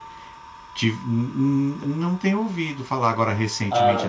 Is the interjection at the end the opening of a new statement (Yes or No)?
Yes